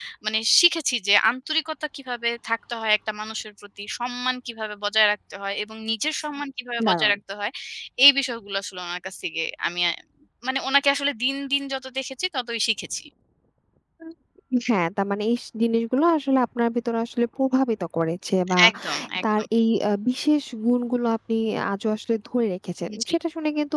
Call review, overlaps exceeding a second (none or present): none